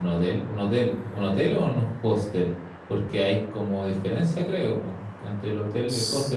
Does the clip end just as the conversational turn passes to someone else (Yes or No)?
No